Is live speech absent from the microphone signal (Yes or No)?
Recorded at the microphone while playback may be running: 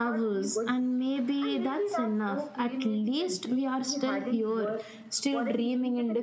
Yes